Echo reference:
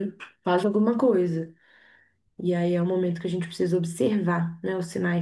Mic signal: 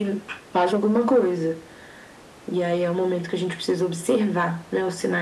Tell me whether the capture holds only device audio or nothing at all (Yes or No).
Yes